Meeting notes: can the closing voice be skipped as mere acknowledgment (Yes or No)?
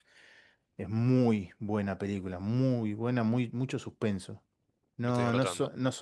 Yes